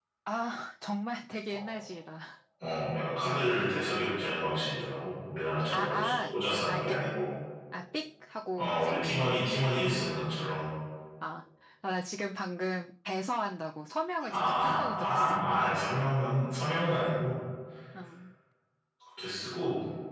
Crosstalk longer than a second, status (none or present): present